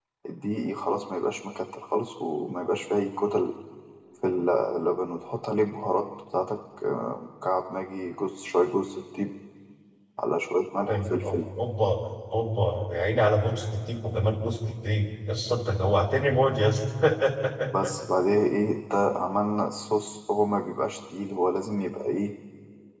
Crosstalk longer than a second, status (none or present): none